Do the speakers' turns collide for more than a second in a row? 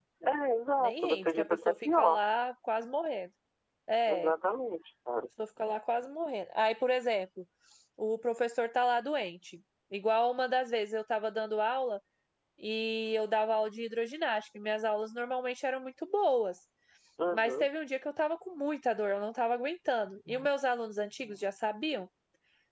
Yes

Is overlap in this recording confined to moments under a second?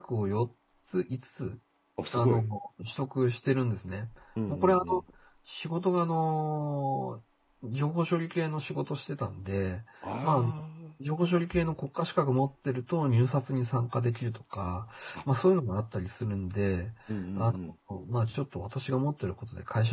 Yes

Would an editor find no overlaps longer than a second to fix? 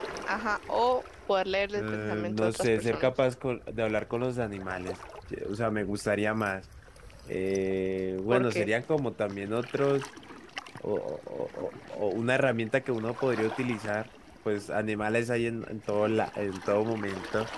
No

